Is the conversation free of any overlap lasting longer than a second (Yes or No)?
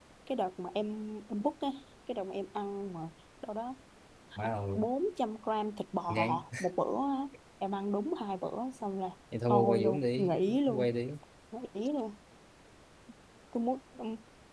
No